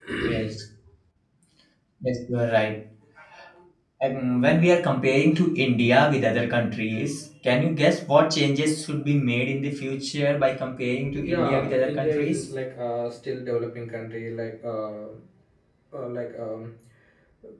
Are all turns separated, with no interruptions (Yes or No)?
No